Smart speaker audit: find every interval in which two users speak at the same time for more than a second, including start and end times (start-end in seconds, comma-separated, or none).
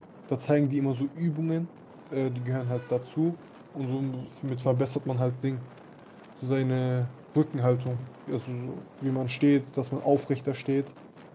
none